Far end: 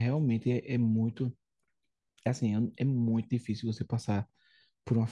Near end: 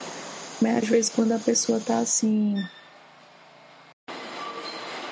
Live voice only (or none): Mas às vezes quando a pessoa tá assim,